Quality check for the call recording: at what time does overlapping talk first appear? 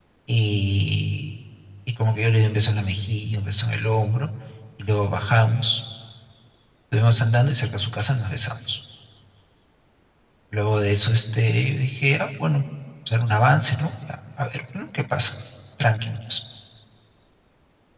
none

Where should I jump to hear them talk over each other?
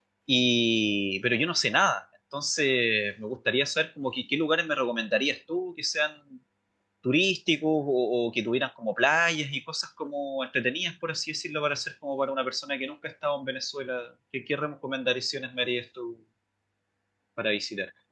none

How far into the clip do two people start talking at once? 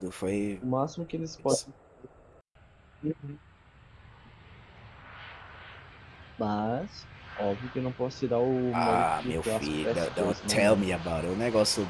9 s

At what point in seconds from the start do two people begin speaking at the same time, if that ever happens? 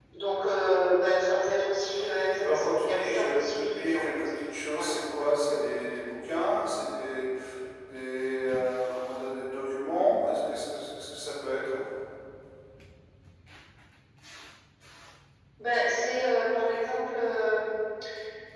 2 s

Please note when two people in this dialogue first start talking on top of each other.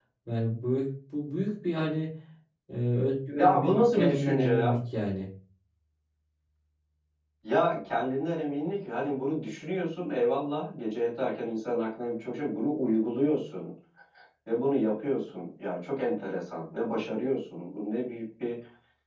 3 s

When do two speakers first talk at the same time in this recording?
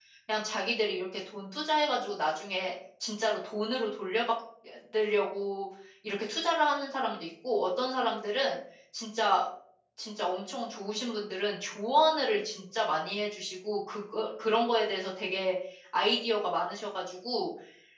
none

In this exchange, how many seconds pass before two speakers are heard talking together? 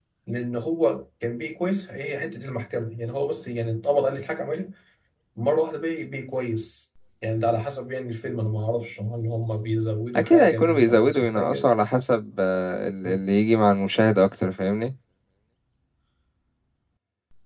10 s

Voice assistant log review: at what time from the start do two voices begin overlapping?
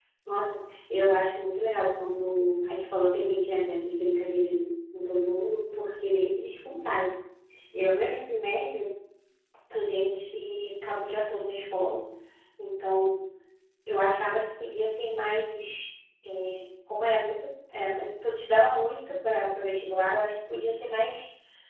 none

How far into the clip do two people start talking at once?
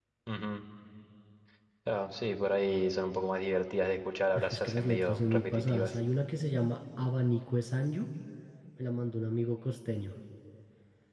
4 s

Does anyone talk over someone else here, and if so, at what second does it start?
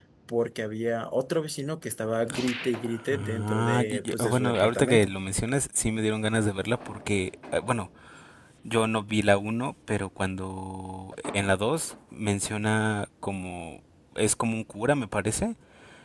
3 s

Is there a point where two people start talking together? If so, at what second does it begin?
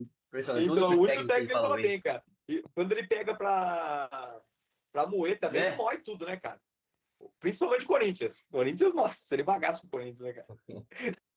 1 s

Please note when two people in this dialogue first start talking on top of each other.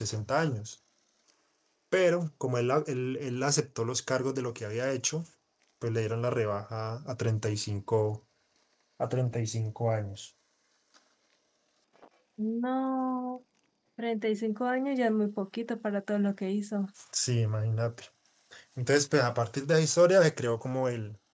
none

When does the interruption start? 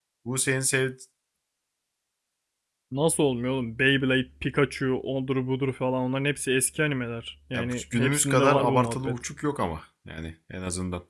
8 s

